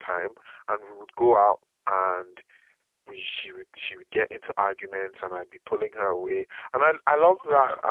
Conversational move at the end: listening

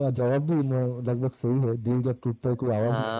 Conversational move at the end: taking over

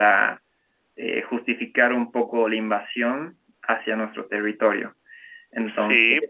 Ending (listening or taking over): taking over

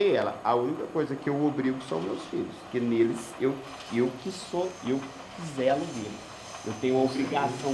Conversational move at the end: listening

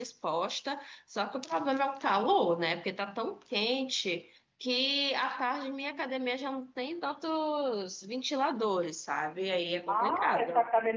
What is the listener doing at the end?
taking over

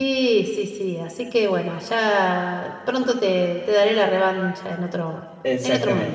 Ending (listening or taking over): taking over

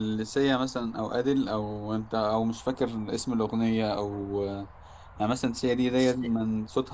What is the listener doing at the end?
listening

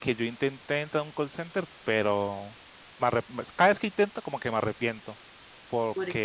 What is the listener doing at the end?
listening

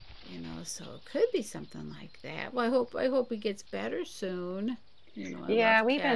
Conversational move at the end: taking over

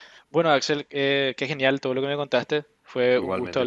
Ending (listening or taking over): listening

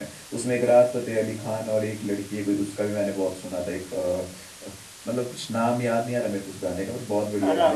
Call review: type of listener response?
taking over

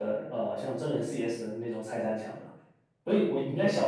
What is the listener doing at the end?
listening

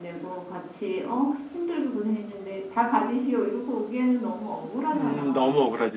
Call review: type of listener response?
taking over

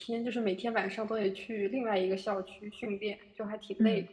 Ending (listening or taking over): taking over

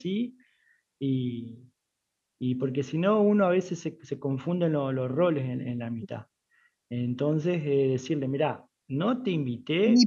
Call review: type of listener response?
taking over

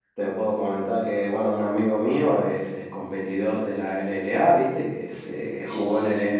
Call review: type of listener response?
listening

